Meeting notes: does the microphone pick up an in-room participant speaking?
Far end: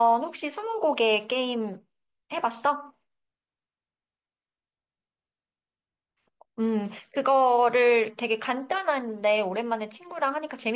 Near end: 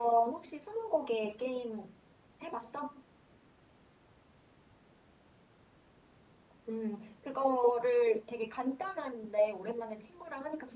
No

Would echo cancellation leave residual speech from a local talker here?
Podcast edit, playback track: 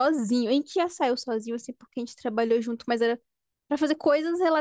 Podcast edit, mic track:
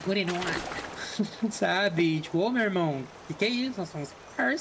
Yes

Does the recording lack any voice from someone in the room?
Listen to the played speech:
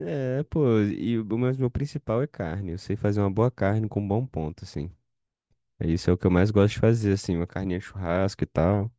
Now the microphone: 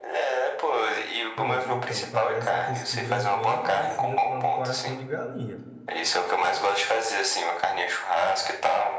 No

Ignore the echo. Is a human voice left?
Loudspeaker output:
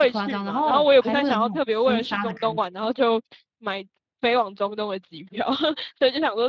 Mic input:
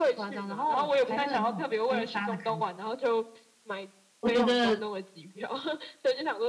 Yes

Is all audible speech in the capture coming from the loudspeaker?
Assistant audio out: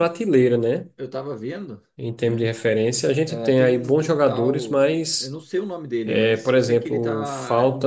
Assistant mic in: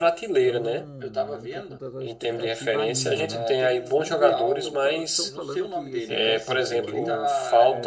No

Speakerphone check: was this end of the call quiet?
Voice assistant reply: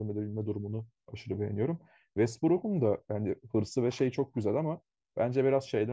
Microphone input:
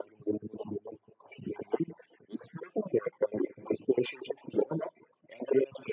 Yes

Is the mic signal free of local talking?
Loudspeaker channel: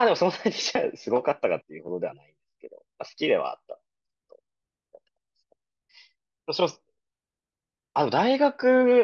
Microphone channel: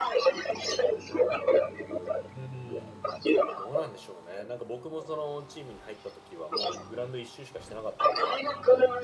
No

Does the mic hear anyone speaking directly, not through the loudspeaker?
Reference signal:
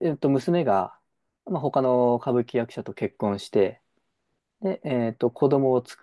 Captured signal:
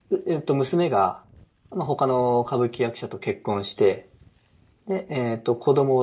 No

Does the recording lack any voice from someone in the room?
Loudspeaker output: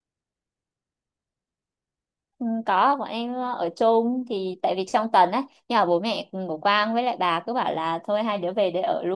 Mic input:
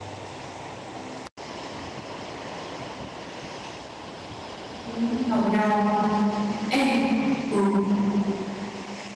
No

